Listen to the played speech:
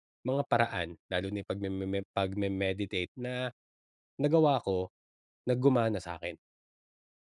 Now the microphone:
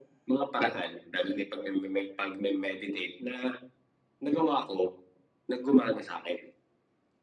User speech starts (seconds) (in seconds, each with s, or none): none